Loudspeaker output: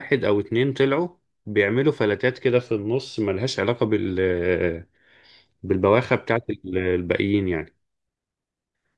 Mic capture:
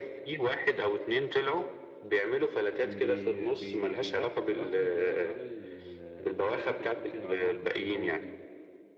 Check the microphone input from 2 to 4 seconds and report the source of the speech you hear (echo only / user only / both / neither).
both